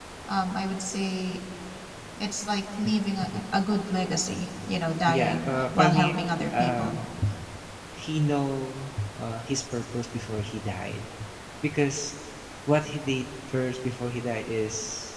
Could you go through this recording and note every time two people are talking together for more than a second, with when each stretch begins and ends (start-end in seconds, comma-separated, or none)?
5.1-6.9